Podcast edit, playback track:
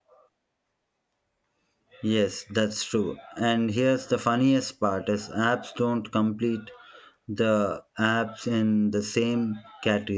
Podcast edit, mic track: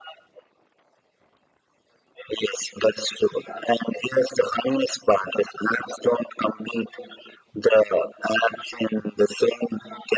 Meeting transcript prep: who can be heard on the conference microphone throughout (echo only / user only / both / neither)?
echo only